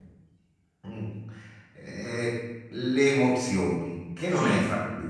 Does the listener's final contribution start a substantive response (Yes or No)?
No